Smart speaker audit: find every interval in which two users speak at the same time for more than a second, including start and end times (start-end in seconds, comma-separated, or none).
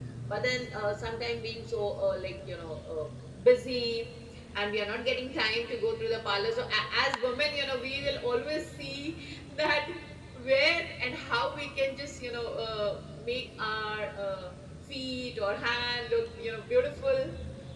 none